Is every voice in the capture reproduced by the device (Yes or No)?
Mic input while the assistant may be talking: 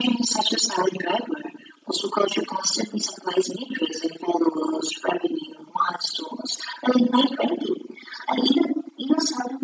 Yes